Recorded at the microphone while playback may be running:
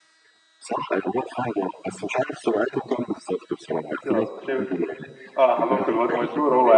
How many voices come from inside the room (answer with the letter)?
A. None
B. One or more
B